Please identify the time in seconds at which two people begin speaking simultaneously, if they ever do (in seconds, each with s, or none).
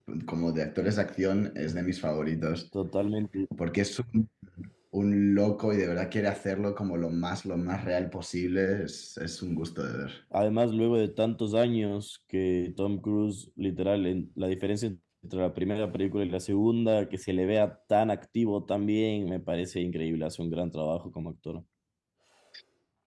none